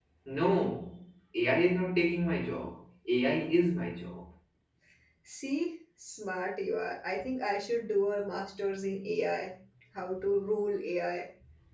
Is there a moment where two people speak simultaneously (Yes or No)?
No